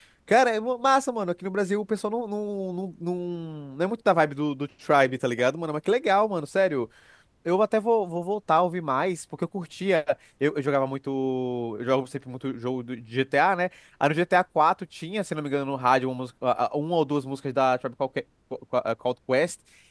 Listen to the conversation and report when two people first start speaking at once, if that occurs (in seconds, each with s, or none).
none